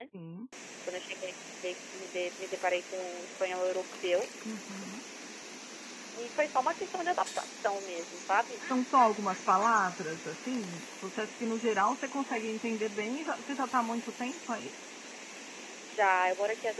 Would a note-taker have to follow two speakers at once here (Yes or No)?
No